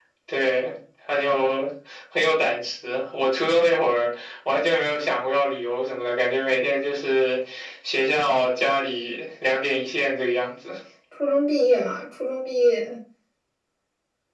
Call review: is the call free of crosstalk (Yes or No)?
Yes